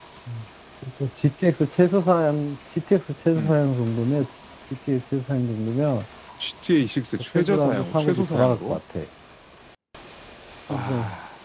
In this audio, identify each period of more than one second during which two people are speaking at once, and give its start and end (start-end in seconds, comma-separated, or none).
7.3-8.8